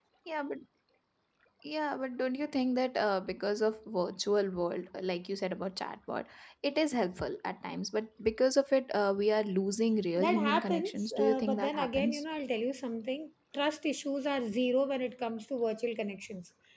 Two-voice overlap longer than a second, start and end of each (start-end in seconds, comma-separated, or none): 10.2-12.2